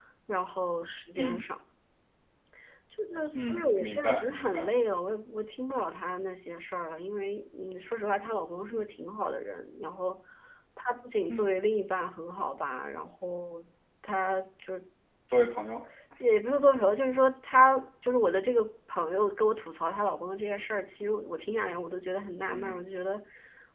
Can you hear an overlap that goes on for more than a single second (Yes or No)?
Yes